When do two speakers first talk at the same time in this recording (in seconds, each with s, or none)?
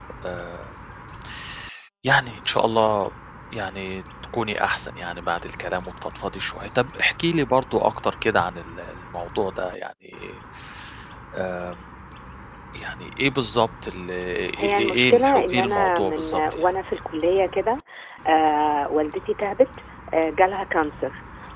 14.6 s